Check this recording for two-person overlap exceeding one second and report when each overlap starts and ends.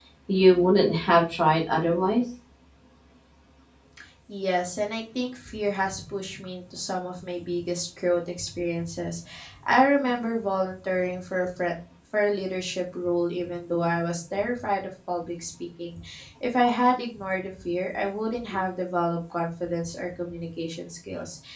none

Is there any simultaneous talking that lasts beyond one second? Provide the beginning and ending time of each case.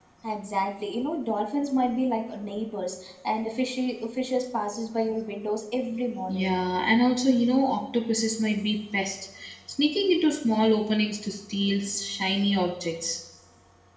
none

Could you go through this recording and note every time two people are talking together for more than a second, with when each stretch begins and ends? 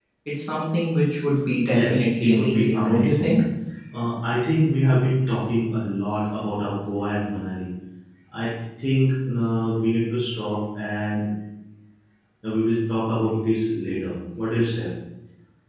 1.7-3.3

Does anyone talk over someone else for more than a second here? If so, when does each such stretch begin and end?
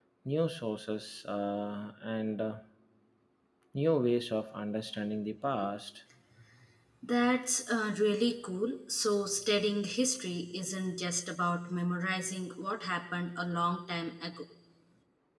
none

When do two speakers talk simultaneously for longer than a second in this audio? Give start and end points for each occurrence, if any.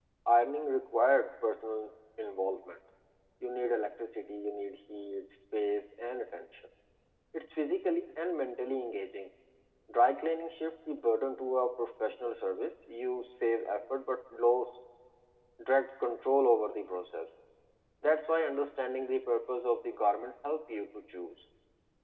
none

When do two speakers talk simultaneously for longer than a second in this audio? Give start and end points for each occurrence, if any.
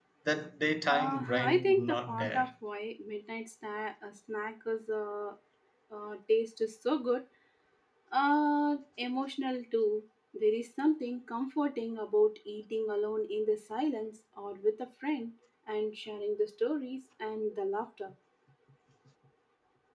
0.9-2.5

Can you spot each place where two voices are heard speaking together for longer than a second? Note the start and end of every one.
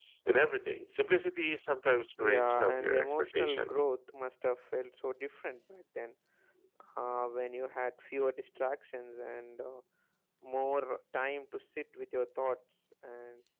2.2-3.8

